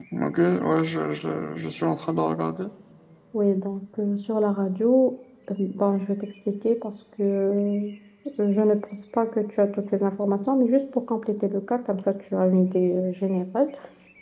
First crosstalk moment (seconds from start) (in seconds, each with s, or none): none